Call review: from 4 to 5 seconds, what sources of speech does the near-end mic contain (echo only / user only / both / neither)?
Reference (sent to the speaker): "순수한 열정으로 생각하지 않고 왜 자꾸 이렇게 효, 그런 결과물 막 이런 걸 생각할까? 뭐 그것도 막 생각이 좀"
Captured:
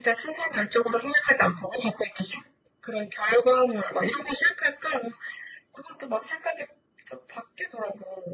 echo only